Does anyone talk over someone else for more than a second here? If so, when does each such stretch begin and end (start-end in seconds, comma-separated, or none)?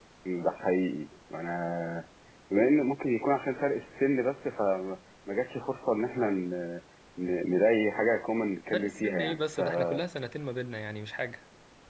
8.7-10.0